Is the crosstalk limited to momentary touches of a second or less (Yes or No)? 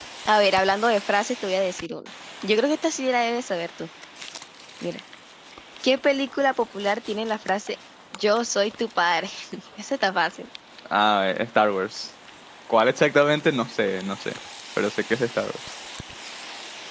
Yes